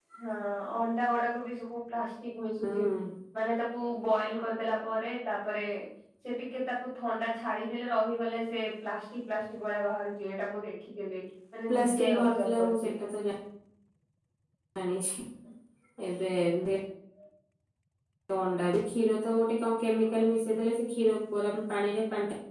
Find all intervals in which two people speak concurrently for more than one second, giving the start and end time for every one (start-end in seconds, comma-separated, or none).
11.7-12.9